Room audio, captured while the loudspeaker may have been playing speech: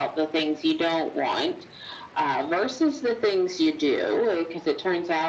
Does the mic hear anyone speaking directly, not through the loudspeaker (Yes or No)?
No